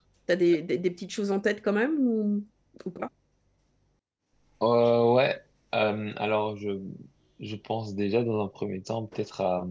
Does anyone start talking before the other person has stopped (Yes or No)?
No